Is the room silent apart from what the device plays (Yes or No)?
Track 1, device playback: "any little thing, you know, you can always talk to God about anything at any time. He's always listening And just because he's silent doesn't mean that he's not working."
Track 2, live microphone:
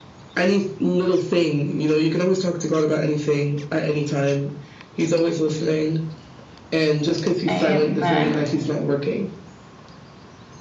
No